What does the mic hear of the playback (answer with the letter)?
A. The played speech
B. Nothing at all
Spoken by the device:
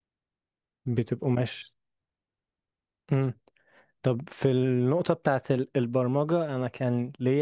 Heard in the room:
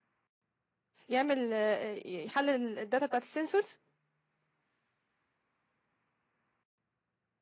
B